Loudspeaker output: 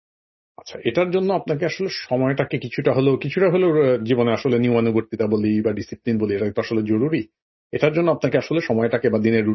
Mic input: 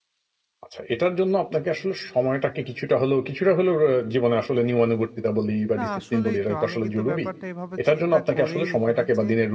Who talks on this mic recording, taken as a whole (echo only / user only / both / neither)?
both